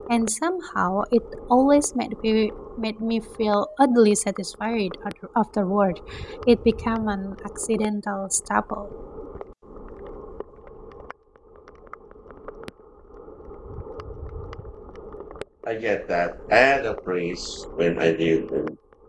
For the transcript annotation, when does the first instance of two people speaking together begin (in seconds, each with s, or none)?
none